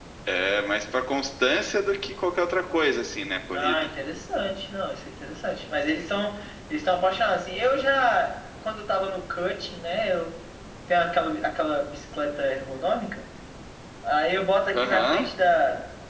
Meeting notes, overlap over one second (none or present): present